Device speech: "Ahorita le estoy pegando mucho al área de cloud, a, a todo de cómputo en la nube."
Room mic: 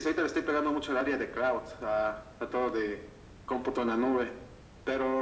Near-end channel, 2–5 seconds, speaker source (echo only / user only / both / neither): echo only